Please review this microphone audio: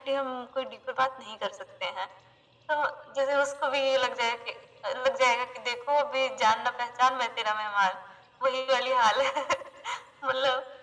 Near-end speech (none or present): none